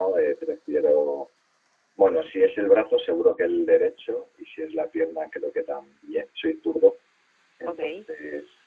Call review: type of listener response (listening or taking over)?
listening